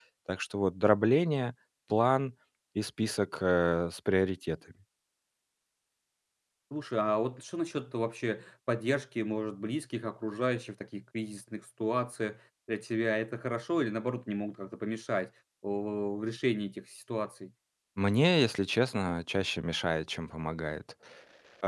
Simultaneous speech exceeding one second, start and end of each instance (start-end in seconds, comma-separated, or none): none